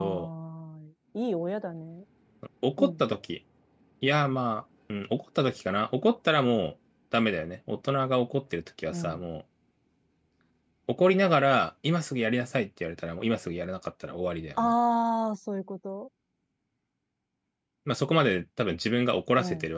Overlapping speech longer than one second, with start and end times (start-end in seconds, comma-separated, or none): none